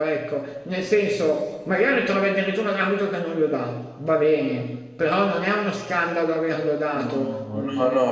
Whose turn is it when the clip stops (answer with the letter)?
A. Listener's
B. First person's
A